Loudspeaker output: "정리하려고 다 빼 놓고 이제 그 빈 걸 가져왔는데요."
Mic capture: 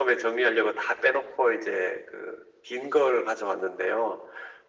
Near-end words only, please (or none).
none